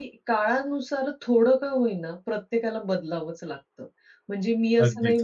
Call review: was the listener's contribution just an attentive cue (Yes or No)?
Yes